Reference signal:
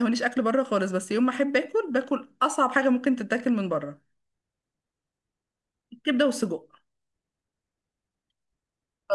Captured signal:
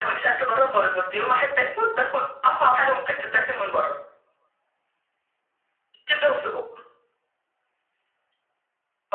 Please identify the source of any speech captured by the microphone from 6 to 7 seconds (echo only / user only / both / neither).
echo only